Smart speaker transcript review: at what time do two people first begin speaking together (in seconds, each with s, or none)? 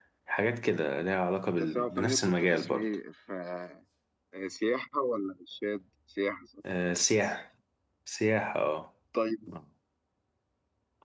1.6 s